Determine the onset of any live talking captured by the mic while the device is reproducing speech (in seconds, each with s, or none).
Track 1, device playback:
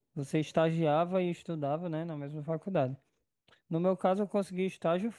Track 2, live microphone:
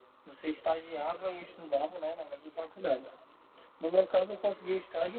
none